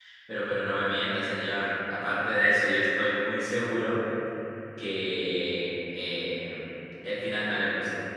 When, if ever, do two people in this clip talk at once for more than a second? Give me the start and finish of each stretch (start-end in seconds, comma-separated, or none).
none